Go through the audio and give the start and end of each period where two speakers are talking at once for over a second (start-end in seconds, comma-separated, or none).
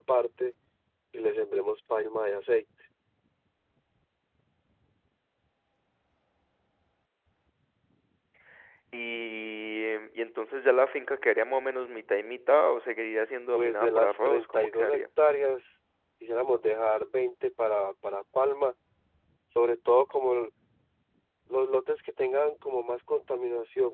13.5-15.0